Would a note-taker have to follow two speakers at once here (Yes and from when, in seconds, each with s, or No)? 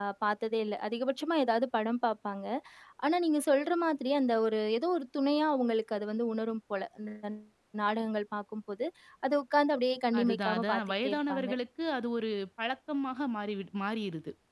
Yes, from 10.1 s